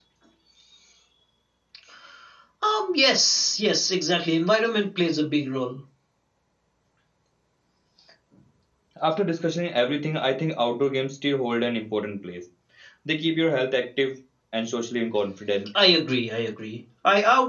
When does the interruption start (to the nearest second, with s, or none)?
none